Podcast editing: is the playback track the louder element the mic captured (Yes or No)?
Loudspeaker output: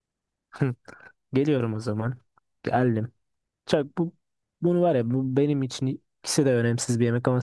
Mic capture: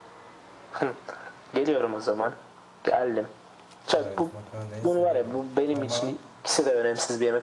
Yes